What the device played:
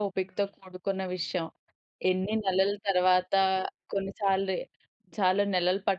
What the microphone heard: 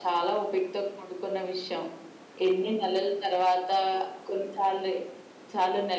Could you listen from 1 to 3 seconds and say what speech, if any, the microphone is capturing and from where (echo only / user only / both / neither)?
echo only